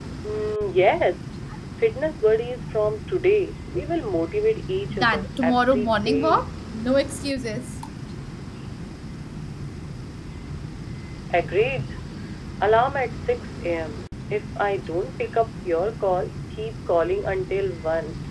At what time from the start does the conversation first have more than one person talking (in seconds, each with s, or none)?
4.9 s